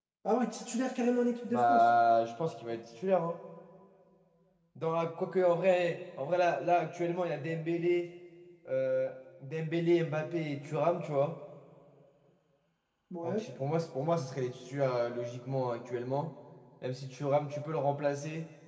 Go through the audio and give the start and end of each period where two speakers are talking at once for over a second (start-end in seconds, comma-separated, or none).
none